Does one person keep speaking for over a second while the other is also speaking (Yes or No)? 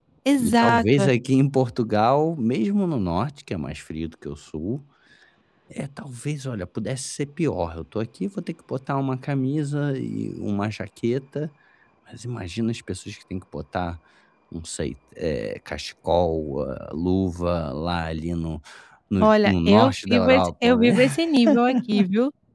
Yes